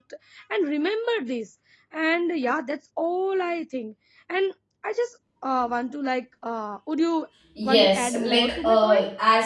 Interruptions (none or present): present